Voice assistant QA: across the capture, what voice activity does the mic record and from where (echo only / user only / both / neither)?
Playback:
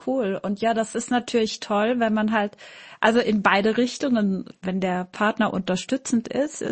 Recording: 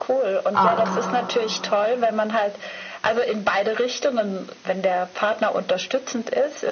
both